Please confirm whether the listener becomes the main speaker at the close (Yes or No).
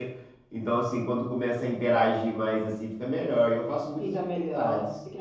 Yes